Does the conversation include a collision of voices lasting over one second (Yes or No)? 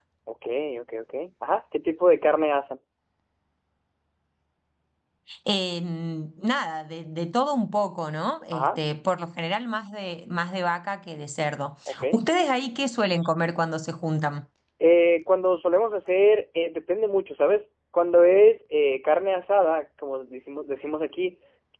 No